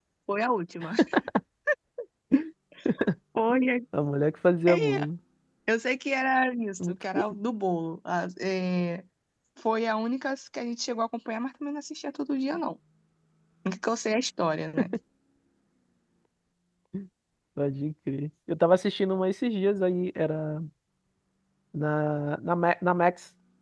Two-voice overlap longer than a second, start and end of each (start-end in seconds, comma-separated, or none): none